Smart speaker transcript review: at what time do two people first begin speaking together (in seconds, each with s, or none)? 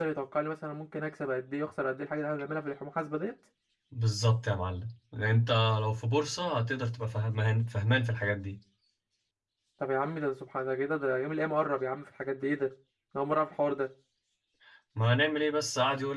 none